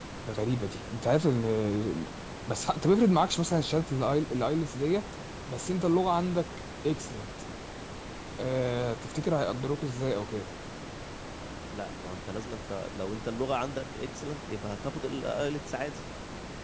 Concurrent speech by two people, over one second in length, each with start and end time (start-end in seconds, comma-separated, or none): none